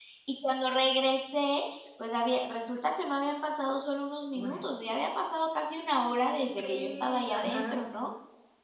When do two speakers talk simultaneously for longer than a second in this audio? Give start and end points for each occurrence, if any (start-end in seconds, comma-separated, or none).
6.1-7.8